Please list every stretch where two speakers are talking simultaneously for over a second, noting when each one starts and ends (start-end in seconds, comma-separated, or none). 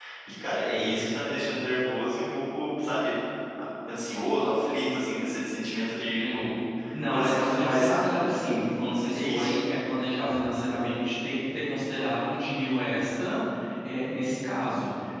7.1-8.6